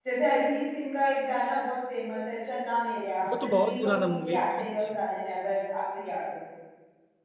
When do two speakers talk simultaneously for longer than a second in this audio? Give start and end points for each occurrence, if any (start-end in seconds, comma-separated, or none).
3.4-4.7